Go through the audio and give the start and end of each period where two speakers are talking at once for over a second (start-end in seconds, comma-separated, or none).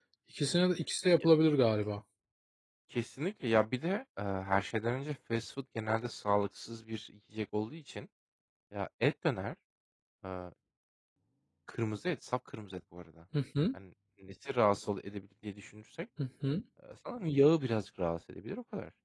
none